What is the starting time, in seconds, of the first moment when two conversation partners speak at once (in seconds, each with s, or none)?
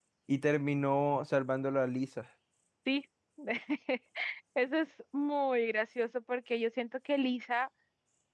none